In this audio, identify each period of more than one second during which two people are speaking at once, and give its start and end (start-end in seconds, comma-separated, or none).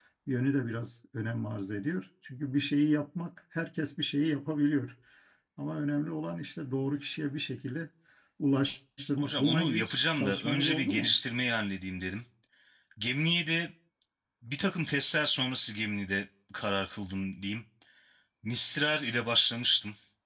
9.2-11.2